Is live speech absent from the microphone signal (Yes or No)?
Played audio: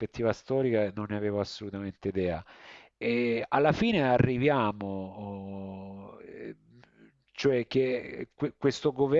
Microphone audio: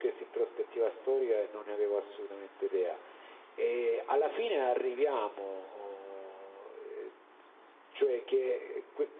Yes